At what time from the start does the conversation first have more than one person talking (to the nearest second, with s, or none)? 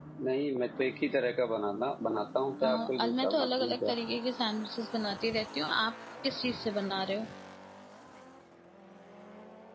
3 s